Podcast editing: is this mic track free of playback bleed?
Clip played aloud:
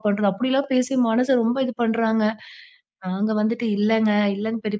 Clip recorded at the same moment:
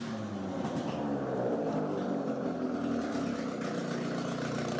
Yes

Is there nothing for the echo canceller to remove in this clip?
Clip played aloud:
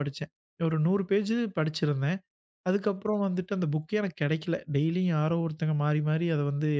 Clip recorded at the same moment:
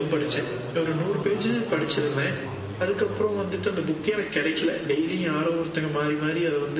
No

